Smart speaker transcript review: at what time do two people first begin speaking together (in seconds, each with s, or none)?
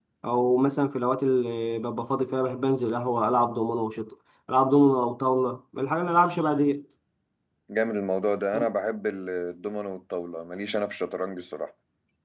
none